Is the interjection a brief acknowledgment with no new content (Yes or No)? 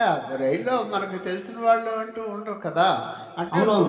No